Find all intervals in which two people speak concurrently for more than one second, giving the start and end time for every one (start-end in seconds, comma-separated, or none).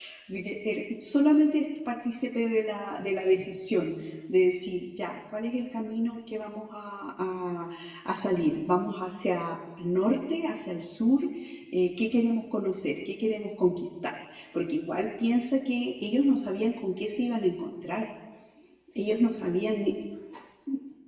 none